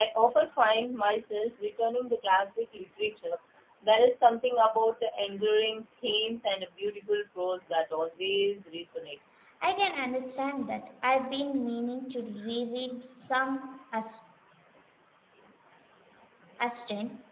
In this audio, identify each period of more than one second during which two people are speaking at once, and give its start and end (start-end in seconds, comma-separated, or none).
none